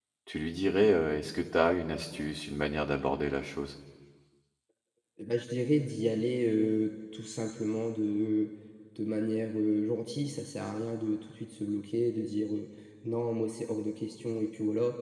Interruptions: none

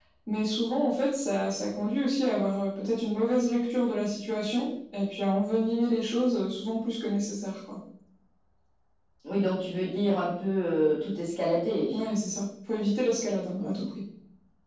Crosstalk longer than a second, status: none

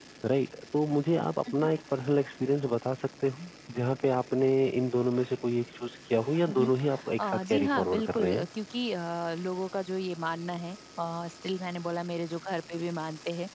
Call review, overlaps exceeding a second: present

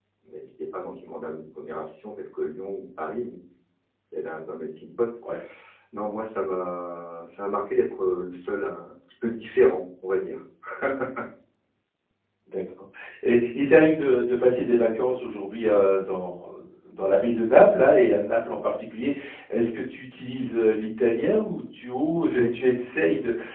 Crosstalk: none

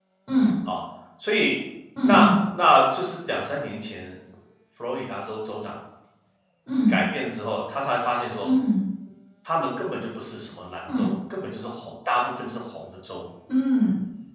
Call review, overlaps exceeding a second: none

